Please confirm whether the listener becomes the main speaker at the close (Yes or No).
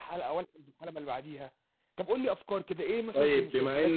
Yes